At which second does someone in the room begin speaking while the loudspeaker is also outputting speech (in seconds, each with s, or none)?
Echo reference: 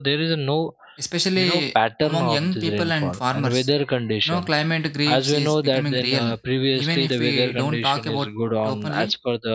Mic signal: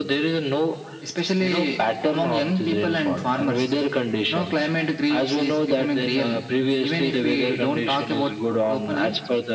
none